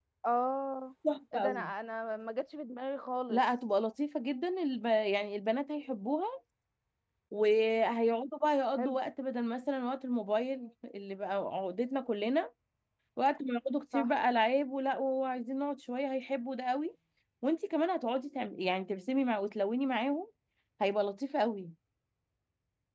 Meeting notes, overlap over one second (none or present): none